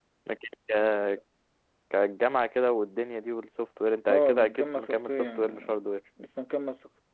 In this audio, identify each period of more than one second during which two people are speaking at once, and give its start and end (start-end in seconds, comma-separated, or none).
4.1-5.9